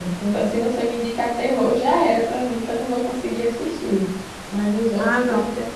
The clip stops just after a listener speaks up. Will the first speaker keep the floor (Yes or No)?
No